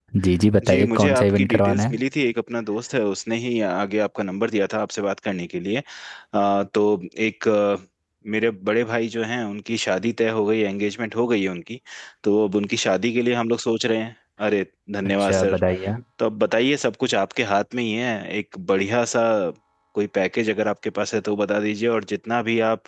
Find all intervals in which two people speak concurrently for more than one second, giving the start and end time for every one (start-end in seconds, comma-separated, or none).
0.7-2.0